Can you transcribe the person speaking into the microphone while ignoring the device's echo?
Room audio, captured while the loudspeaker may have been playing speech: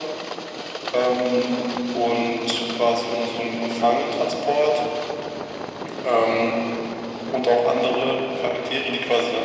none

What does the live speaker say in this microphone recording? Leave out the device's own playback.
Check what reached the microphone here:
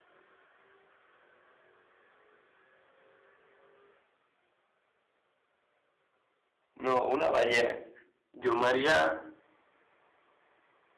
No, una ballena. Yo me haría,

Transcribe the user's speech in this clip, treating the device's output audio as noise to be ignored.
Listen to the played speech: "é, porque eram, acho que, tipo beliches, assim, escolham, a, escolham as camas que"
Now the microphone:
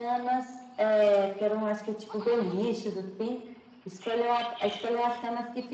none

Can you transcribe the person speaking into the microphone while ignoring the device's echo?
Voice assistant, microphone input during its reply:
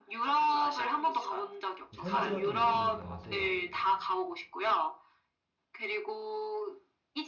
좀 현지화된 느낌이 강해서

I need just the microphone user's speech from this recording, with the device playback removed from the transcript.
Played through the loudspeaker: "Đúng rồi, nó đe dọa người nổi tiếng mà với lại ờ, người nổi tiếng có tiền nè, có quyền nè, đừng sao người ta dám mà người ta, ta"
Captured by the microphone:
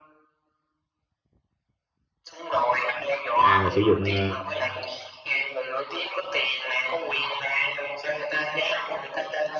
cái ai mà sử dụng ờ,

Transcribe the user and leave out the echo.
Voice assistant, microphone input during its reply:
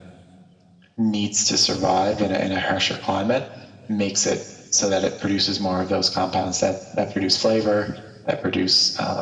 none

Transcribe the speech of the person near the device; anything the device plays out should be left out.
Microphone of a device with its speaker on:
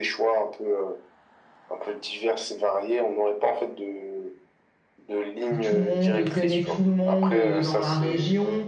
où tout le monde connaît tout le monde euh, dans la région.

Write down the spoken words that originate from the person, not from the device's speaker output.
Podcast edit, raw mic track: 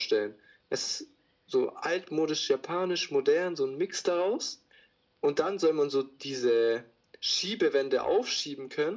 none

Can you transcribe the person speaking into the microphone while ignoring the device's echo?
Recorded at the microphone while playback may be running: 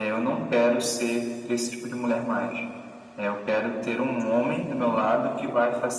none

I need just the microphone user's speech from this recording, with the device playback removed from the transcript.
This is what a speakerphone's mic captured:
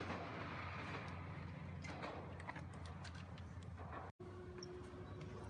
none

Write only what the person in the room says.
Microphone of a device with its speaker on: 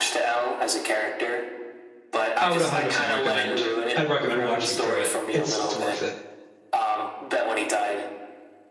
I would 100% recommend. I'd recommend watching through it. It's it's worth it.

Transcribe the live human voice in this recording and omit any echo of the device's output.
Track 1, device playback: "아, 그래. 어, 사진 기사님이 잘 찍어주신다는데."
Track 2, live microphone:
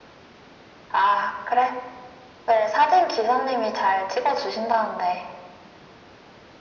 none

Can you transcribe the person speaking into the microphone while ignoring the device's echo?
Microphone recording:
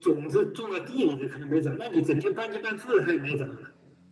none

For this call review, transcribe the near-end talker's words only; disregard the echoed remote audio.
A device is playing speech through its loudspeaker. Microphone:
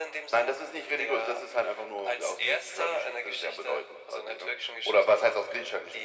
none

